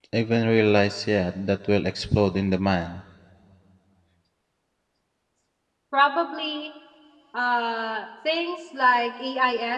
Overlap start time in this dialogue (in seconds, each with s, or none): none